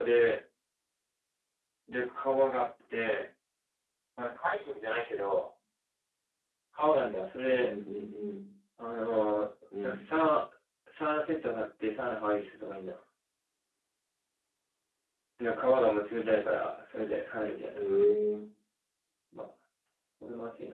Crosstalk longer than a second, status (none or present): none